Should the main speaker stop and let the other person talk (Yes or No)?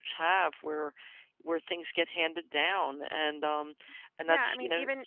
Yes